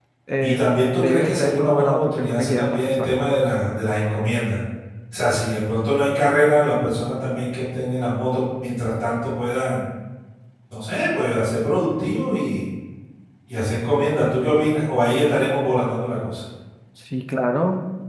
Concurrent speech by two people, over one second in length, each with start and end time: 1.0-3.2

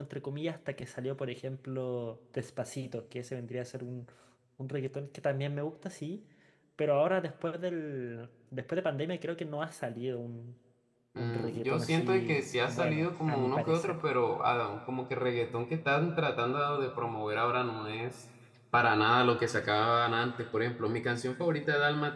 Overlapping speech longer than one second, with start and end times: 11.2-14.0

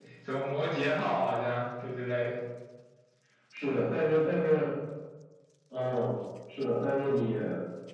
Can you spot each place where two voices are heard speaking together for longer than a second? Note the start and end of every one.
none

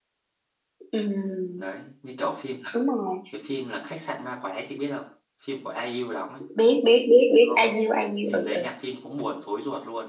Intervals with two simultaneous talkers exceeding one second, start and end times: none

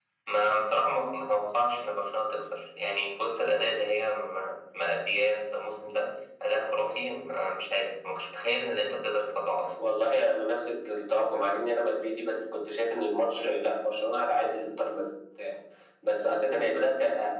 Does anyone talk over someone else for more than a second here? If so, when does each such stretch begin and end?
none

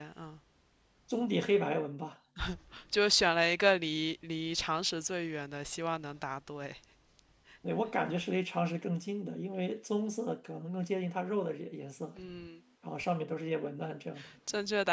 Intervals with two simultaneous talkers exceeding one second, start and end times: none

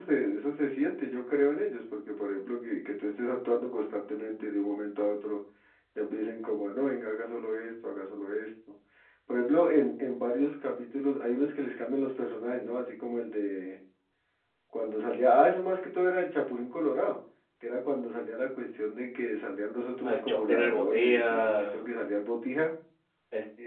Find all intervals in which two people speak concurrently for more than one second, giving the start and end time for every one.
20.0-21.8

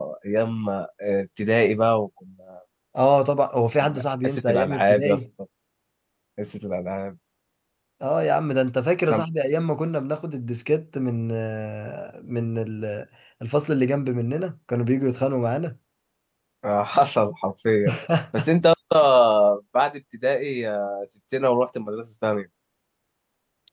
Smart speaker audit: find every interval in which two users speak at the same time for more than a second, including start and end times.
3.8-5.2

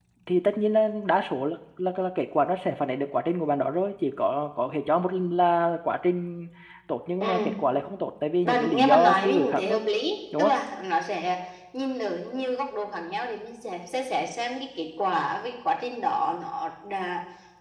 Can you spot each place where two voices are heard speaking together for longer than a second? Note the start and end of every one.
8.4-9.8

